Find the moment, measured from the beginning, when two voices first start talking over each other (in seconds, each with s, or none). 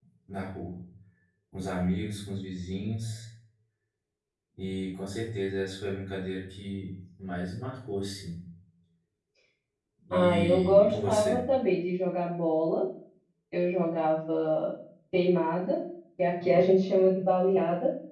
10.1 s